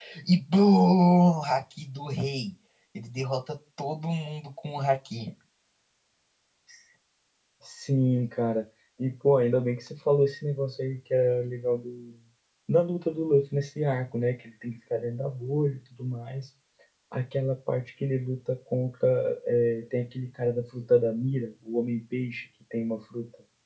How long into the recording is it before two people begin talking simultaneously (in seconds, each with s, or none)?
none